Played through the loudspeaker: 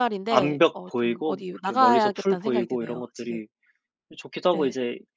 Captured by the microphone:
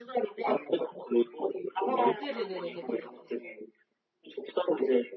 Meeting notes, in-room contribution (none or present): present